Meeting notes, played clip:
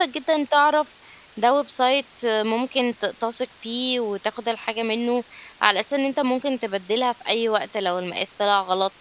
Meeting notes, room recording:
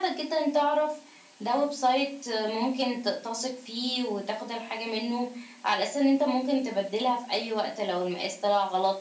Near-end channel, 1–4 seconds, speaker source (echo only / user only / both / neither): echo only